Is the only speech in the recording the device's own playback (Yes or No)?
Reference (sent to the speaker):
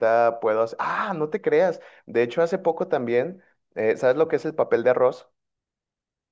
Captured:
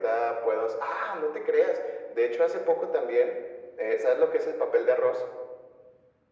Yes